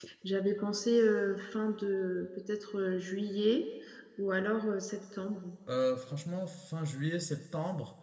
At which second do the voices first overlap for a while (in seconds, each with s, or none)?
none